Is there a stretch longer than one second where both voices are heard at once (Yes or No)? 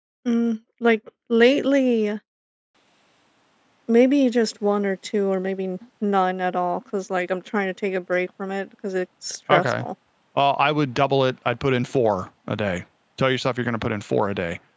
No